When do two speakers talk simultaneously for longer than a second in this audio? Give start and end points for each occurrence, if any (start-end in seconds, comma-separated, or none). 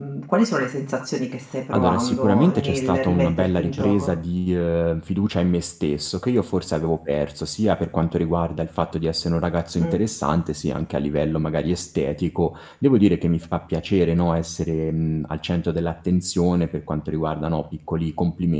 1.7-4.1